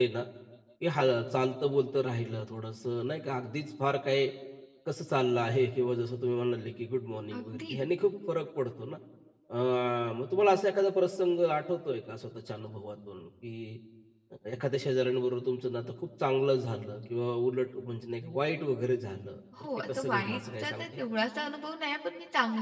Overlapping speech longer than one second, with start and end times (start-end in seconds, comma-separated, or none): 19.8-21.0